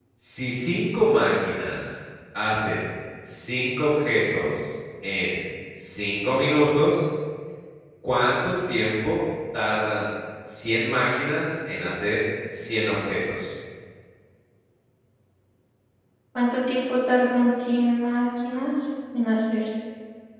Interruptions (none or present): none